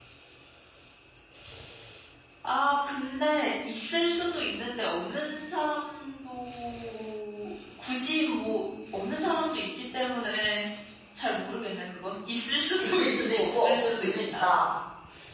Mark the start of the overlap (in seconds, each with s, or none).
12.8 s